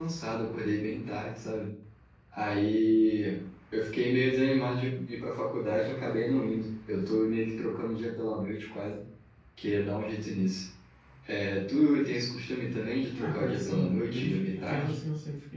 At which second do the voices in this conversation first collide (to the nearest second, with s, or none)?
13 s